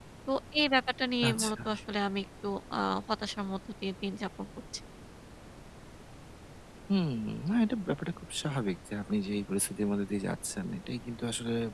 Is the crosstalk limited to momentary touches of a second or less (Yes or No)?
Yes